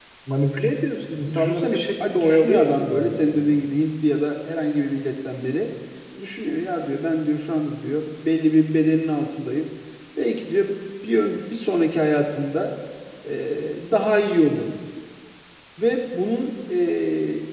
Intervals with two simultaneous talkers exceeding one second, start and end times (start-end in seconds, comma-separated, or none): 1.3-3.6